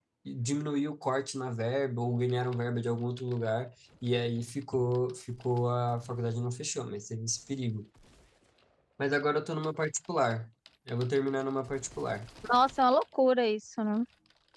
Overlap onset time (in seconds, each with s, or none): none